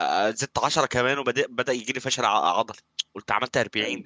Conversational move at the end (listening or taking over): listening